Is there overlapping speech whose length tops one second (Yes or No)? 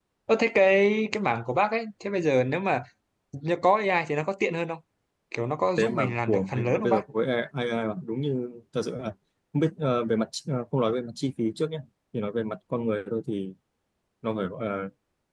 Yes